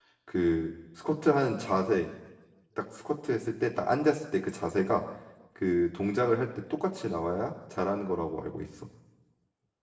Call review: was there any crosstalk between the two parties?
No

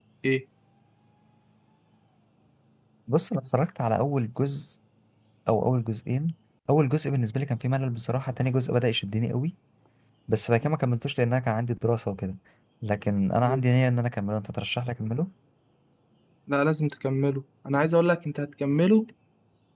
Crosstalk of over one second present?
No

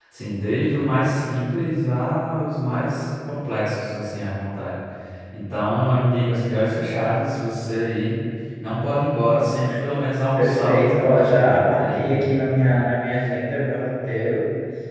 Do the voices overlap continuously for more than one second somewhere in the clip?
Yes, from 10.4 s

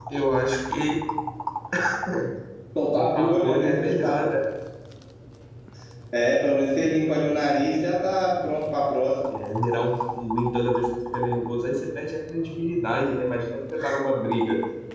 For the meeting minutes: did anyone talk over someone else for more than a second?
Yes, from 2.9 s

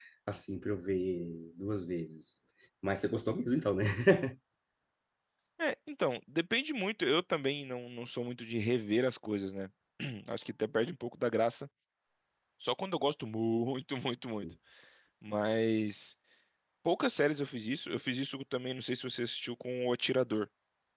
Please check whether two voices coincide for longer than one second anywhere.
No

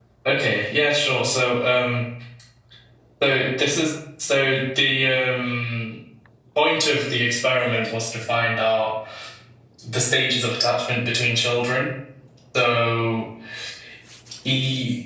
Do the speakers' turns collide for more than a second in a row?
No

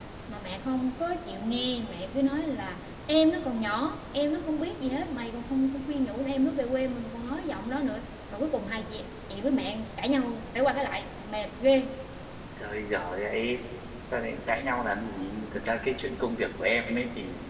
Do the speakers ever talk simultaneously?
No

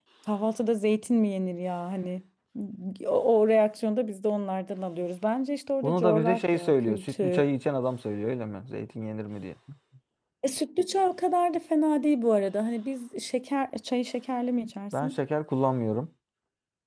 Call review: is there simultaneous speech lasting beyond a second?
Yes, from 5.8 s

